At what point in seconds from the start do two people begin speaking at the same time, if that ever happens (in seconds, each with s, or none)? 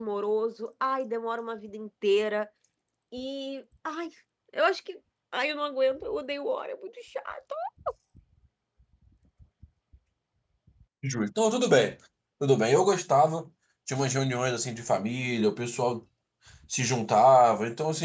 none